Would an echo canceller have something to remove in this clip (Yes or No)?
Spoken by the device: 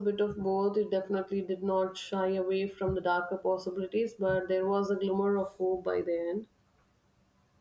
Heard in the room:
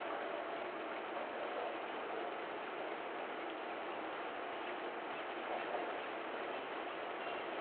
No